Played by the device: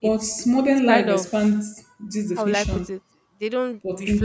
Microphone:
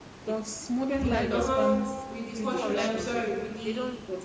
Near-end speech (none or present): present